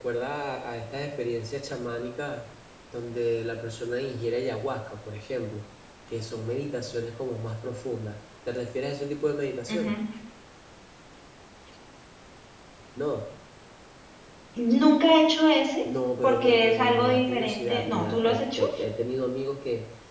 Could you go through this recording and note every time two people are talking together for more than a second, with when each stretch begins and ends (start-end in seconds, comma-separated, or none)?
16.2-18.6